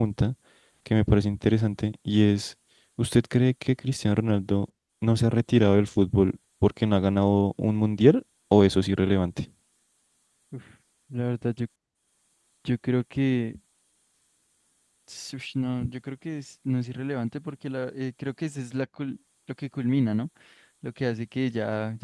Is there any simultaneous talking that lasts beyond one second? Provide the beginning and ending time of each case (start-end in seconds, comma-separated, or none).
none